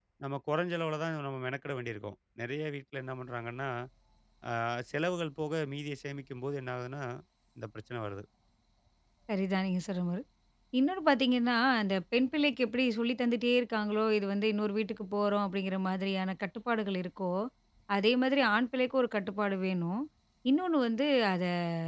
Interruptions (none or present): none